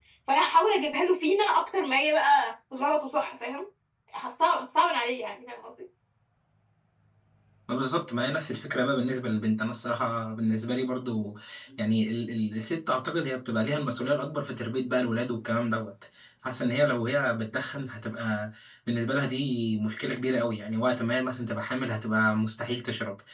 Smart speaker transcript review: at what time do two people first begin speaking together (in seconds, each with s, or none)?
none